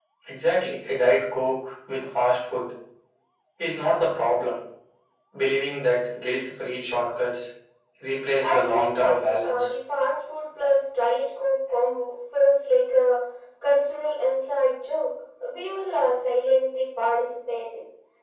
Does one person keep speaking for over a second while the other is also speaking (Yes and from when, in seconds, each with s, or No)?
Yes, from 8.4 s